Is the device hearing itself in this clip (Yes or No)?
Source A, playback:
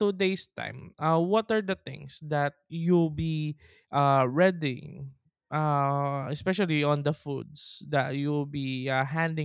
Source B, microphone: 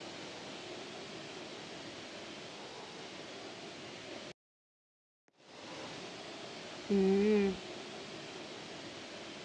No